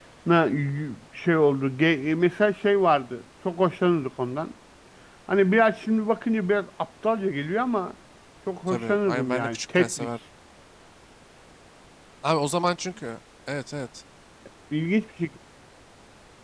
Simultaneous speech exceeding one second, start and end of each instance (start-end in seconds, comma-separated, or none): 8.7-10.1